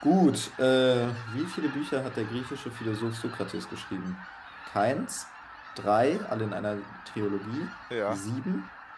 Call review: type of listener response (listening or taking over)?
listening